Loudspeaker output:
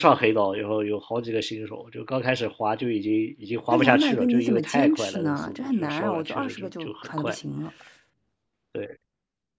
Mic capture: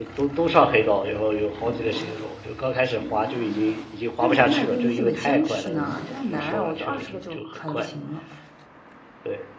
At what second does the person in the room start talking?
none

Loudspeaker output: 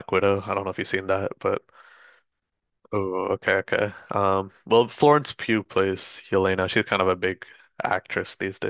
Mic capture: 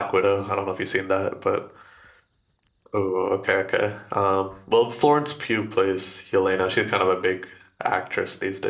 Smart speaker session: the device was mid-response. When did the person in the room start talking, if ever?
none

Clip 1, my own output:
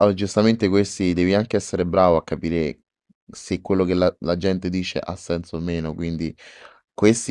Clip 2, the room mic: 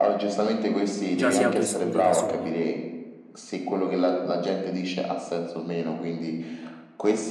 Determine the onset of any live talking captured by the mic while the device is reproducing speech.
1 s

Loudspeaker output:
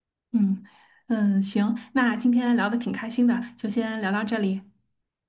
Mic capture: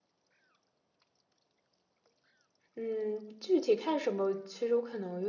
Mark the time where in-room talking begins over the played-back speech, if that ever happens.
3 s

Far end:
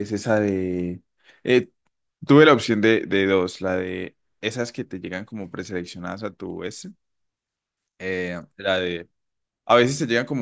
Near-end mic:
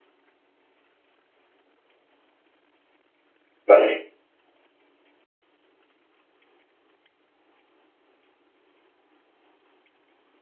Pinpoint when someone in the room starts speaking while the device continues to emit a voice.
4 s

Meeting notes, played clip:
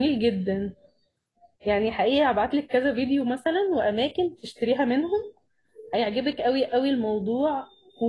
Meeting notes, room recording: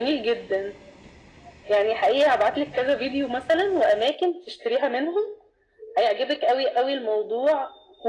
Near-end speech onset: none

